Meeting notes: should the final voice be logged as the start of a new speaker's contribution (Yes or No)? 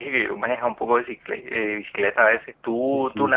Yes